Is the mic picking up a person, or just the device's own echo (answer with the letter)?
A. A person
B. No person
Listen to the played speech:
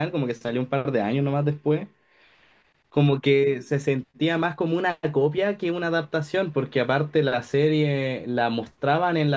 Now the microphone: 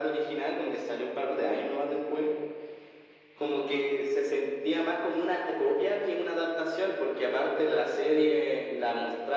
B